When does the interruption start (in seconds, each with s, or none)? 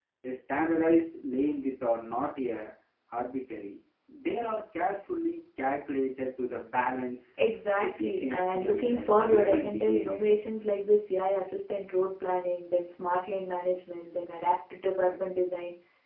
7.8 s